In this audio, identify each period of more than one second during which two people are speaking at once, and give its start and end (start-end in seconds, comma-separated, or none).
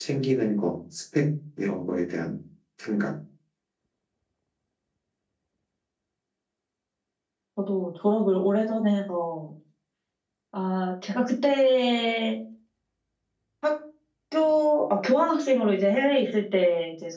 none